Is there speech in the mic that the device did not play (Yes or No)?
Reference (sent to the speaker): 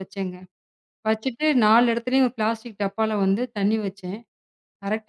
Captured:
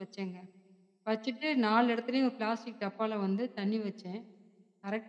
No